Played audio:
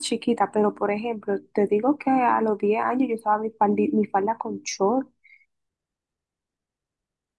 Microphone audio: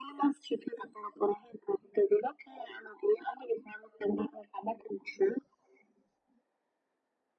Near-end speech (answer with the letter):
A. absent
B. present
A